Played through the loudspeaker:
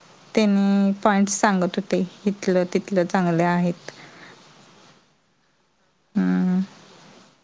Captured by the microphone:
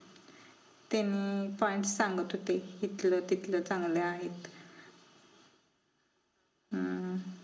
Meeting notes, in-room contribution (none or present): none